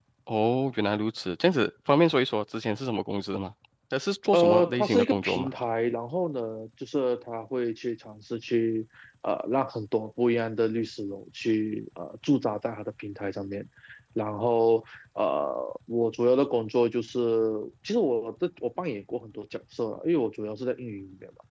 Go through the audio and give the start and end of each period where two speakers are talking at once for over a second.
4.3-5.5

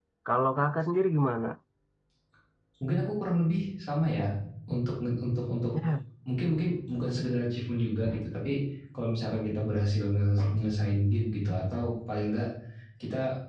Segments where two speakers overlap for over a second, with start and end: none

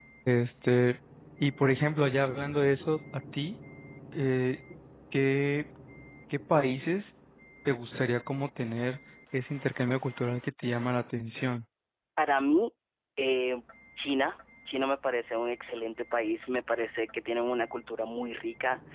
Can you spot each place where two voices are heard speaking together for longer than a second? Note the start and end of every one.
none

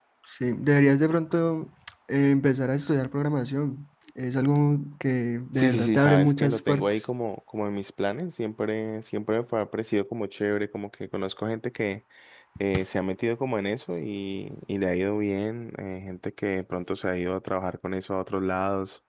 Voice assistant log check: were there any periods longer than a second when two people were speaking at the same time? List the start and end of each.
5.5-7.0

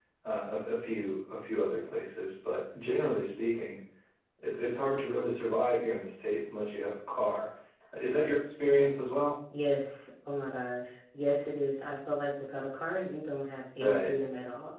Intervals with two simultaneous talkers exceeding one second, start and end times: none

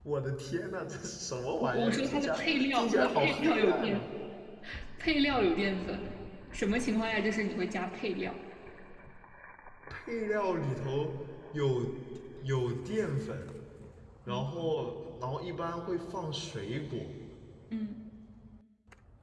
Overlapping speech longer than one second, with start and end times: 1.6-4.0

